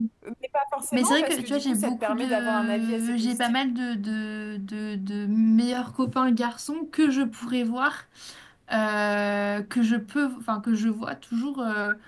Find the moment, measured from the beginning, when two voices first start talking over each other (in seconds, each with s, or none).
0.9 s